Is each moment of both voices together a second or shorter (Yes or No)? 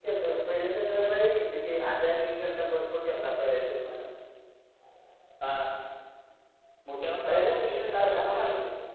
No